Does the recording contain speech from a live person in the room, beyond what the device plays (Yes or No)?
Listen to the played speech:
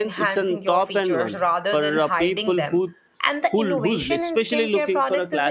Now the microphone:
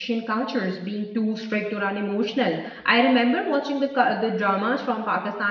Yes